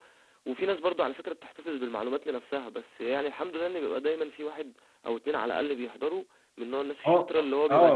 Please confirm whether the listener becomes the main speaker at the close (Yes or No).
Yes